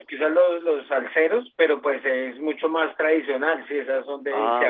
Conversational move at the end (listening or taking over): listening